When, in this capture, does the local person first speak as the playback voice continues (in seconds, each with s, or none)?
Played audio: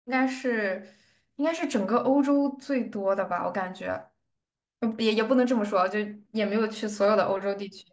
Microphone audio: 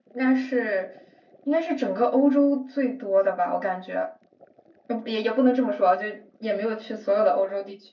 none